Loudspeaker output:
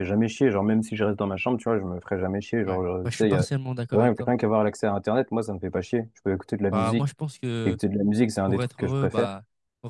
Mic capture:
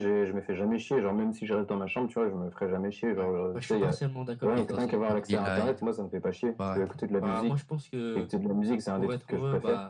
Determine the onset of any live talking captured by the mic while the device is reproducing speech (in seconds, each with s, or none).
4.5 s